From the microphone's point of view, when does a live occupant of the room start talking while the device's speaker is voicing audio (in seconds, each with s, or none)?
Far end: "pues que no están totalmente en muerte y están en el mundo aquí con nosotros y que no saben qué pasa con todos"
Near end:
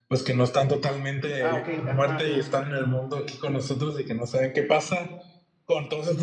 1.4 s